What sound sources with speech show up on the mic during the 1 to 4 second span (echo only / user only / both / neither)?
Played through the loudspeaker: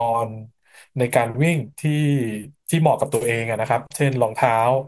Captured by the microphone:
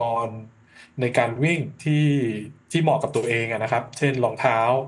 echo only